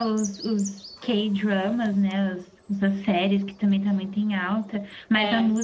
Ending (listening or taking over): listening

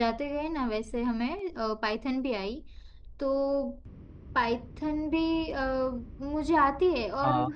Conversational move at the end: listening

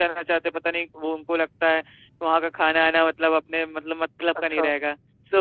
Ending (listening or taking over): listening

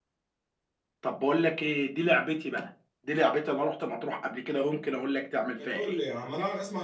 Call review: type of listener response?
taking over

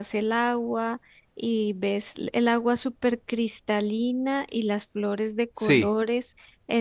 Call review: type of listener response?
listening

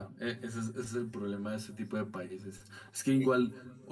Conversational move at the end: listening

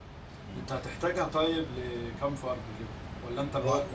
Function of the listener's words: taking over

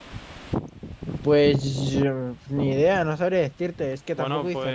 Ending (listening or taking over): taking over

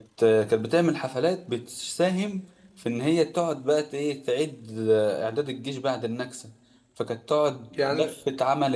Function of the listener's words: listening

